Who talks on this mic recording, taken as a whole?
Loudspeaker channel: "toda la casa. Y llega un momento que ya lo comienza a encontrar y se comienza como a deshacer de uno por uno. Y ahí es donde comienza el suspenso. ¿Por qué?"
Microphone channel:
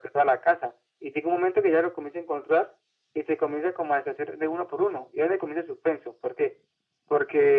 echo only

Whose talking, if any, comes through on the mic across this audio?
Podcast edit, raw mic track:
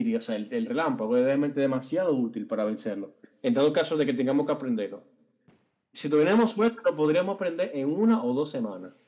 echo only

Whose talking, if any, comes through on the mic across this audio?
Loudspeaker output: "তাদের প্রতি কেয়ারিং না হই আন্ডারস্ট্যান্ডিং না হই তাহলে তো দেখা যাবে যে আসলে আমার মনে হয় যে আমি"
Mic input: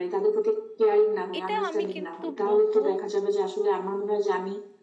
both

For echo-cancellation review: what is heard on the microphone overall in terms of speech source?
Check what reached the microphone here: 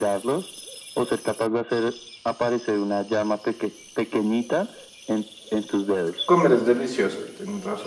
both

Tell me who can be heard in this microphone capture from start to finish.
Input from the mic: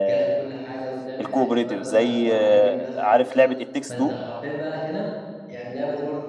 both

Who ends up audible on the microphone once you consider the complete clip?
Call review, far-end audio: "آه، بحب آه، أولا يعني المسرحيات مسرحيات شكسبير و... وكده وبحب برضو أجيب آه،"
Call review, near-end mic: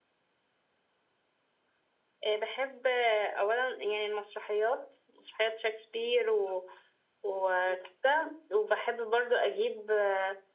echo only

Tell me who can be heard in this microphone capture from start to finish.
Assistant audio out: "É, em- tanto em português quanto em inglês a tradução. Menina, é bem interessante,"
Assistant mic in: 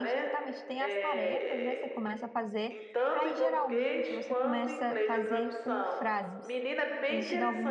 both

